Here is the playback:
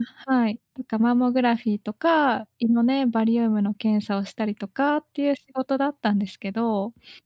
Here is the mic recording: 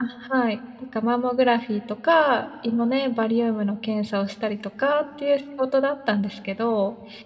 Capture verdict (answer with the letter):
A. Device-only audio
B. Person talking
A